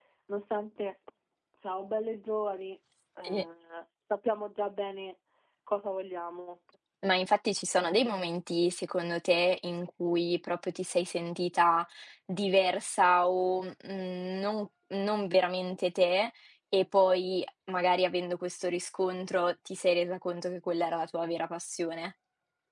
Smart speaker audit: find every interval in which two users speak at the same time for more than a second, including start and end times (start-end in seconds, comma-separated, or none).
none